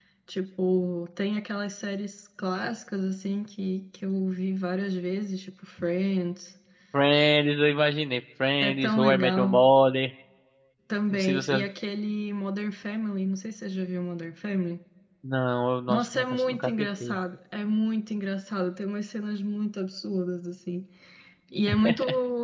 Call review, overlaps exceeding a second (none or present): present